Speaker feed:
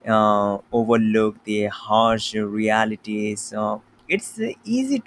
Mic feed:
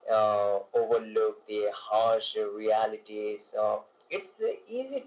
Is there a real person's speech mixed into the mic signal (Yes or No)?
No